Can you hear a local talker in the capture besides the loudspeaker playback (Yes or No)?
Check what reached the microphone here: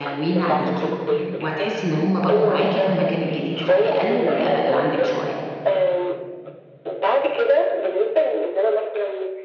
Yes